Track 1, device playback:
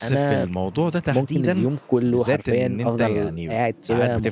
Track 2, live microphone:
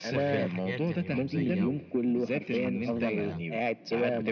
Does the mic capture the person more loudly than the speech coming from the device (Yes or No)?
No